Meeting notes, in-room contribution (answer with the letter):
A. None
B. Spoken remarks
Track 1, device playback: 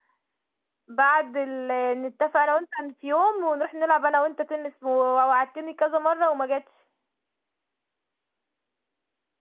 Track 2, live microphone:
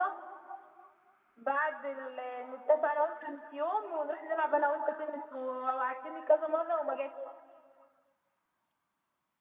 A